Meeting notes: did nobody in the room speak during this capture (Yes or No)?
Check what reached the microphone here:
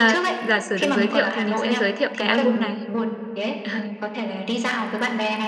No